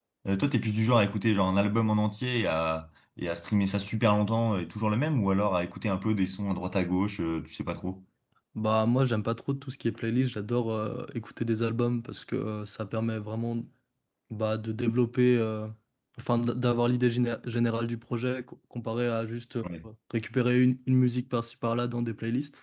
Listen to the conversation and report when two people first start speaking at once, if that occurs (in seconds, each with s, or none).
none